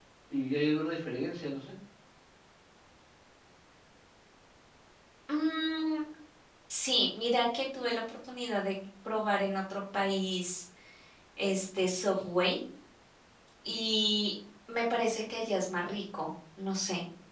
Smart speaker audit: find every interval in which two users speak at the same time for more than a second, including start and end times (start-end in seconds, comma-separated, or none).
none